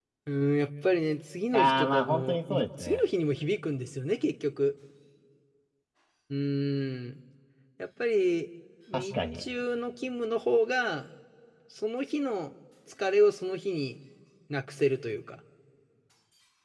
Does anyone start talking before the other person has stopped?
Yes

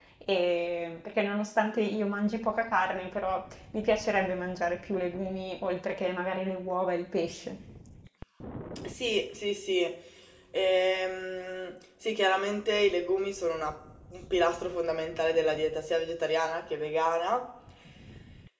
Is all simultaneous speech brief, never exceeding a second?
Yes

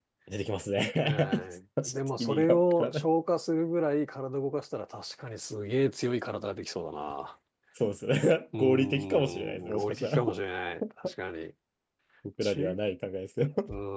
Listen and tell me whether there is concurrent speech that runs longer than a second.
Yes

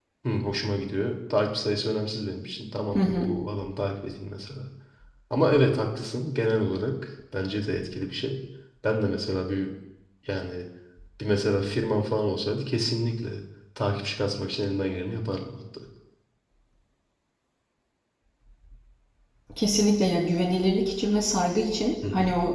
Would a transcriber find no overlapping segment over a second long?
Yes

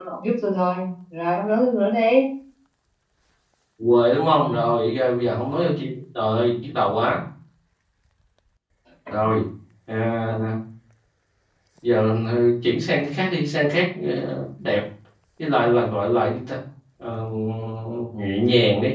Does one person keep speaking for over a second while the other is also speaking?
No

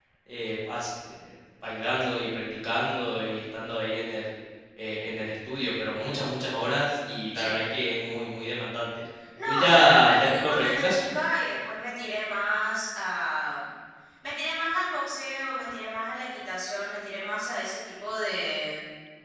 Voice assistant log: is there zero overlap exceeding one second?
No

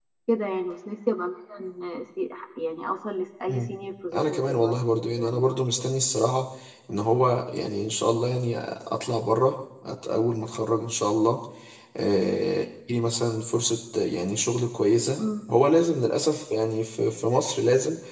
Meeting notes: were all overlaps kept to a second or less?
No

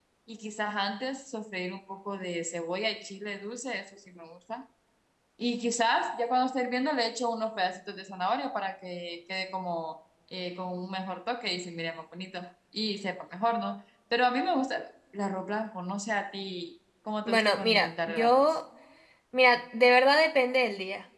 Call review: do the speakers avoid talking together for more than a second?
No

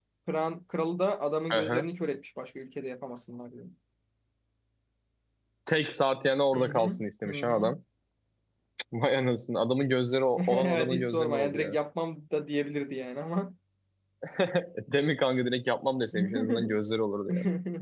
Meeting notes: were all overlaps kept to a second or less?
No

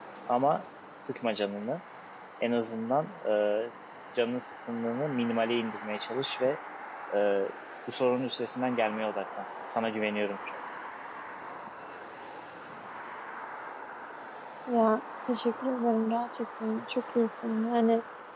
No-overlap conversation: Yes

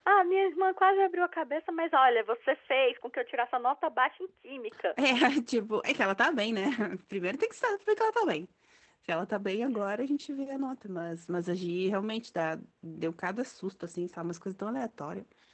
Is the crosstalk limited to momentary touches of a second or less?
Yes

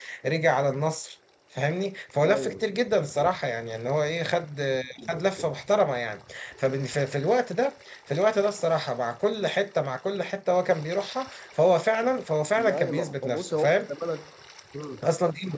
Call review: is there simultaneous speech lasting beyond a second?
Yes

